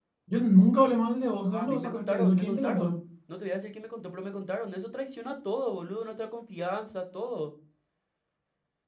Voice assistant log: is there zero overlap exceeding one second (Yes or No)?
No